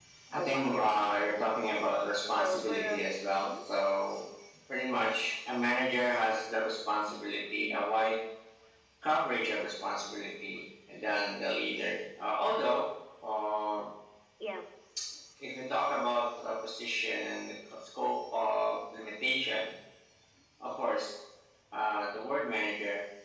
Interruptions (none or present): present